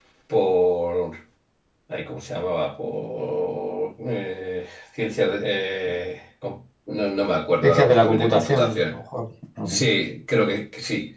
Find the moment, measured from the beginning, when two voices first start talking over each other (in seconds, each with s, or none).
7.6 s